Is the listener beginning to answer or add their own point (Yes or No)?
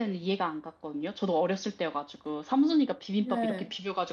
No